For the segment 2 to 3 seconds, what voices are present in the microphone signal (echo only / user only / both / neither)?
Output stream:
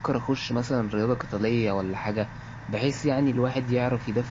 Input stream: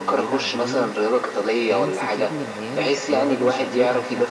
both